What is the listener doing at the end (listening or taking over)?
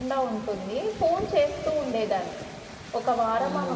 listening